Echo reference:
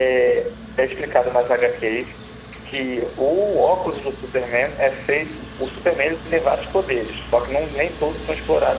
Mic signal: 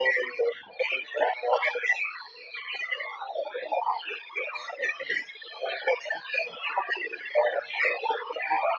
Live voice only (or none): none